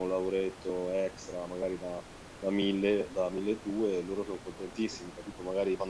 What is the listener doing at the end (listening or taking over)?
listening